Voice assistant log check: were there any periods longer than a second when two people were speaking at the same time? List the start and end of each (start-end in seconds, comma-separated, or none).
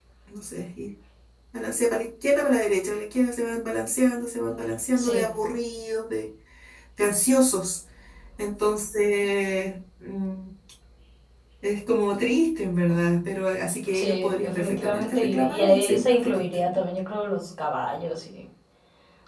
13.9-16.8